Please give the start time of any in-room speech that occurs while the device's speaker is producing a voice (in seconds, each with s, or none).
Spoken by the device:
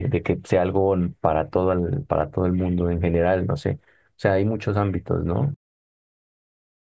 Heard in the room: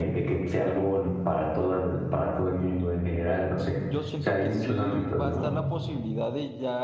3.8 s